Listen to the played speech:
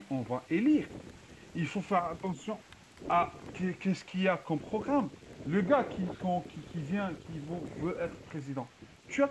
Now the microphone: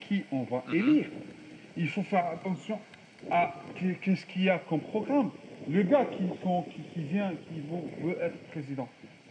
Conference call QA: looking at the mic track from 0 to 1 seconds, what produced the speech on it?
both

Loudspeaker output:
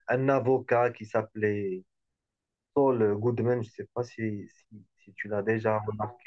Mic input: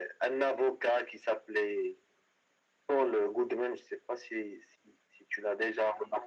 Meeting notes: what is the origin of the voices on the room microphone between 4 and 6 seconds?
echo only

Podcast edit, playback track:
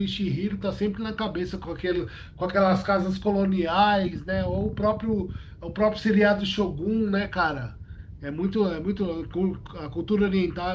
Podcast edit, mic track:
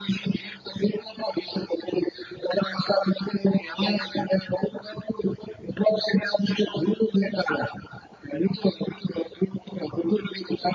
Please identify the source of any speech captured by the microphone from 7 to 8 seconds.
echo only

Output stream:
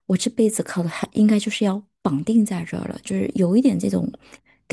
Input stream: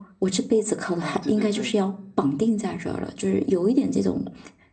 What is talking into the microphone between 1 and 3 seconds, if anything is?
both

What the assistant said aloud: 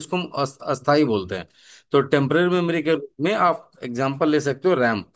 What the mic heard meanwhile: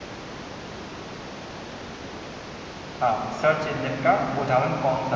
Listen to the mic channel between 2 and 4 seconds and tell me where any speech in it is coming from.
user only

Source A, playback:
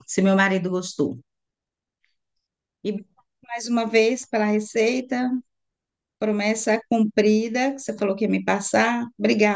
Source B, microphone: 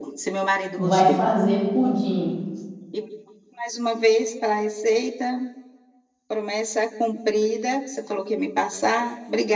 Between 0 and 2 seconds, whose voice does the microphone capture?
both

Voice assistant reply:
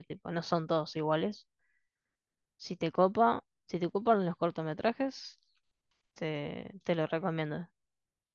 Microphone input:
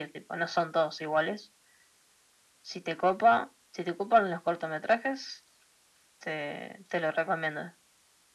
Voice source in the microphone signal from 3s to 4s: echo only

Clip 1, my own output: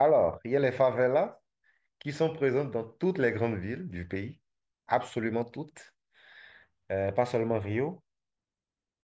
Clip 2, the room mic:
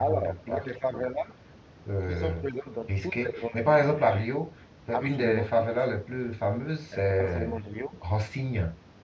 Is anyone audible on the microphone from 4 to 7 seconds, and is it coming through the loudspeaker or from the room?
both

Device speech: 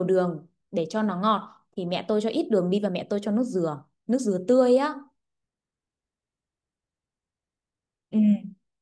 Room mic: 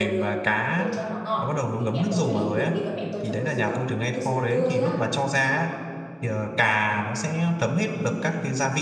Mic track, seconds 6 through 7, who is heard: user only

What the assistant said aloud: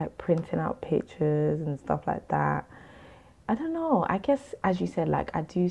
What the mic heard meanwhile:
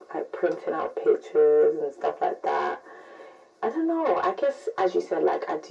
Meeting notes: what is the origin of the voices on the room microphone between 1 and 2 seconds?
echo only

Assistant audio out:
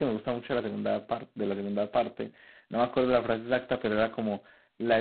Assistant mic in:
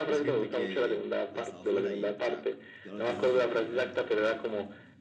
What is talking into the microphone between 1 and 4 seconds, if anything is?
both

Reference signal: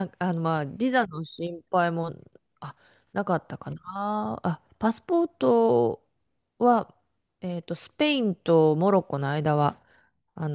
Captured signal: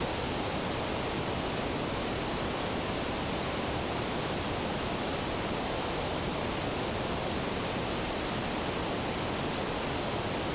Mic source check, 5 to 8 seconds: neither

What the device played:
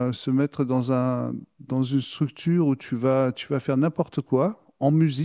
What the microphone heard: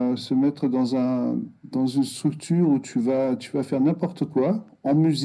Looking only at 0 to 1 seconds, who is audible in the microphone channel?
echo only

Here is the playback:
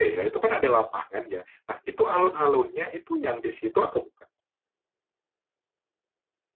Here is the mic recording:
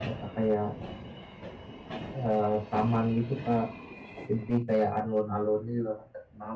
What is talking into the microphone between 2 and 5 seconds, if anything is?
user only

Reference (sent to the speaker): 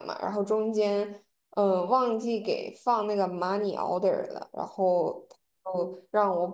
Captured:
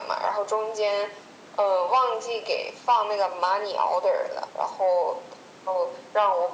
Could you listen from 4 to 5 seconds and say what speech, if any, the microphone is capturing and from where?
echo only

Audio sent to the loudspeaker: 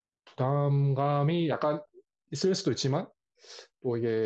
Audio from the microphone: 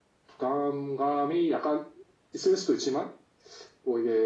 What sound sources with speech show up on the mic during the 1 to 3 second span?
echo only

